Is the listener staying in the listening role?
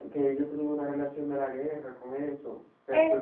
No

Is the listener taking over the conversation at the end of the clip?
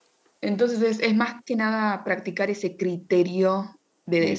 Yes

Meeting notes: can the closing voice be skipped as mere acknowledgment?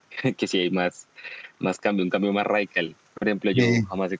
Yes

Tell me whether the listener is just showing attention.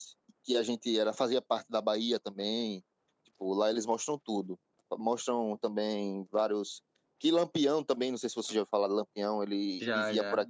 Yes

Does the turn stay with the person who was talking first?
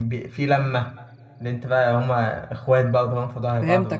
No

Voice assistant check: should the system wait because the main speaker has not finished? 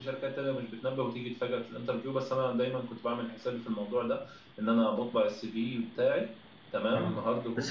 No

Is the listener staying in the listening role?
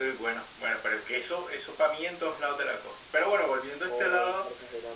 No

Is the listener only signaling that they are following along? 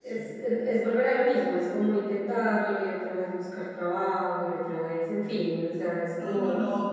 No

